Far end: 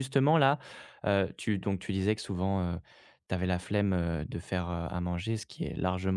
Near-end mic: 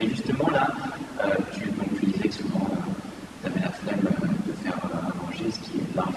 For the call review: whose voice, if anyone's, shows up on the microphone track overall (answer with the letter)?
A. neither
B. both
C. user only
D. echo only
D